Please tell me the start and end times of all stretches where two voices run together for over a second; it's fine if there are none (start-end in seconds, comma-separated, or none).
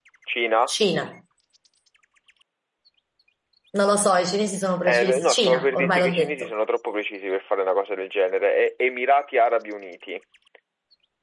4.9-6.5